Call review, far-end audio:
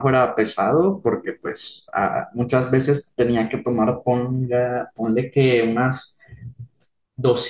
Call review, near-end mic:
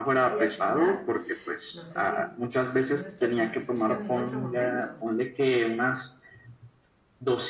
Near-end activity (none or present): present